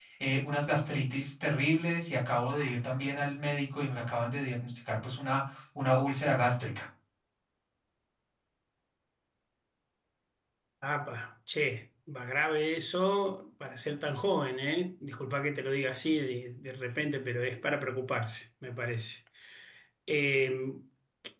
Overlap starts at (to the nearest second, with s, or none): none